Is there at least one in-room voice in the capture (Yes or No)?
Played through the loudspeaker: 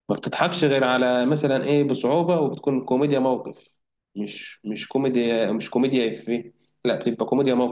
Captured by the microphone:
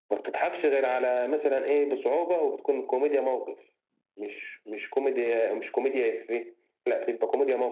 No